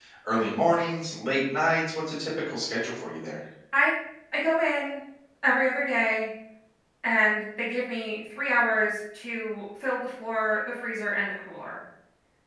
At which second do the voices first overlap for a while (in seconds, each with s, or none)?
none